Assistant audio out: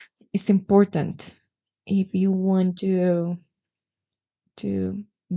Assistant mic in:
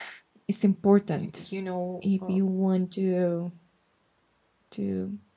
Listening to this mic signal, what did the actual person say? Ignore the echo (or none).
you know, uh,